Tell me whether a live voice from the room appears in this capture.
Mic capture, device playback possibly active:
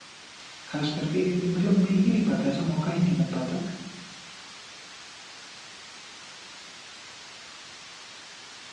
Yes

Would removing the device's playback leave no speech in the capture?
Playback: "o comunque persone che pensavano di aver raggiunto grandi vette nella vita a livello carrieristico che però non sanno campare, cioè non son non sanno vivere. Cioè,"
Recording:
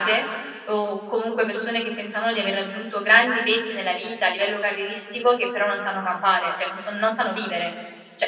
Yes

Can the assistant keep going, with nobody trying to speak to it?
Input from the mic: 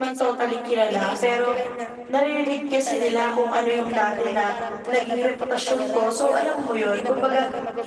No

